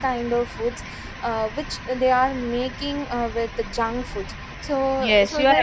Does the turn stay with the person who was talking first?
No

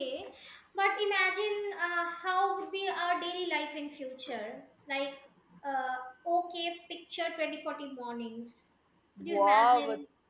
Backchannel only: No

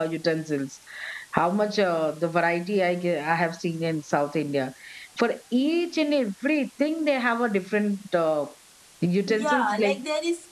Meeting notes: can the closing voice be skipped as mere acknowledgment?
No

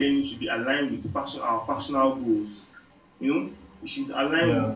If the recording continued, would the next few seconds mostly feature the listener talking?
No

